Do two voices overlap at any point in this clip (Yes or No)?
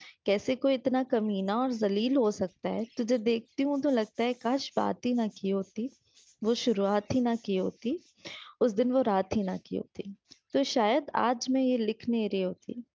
No